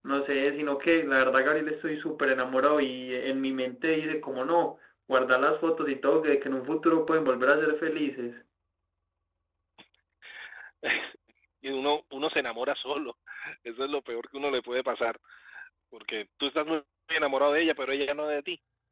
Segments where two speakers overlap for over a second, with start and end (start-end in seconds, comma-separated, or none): none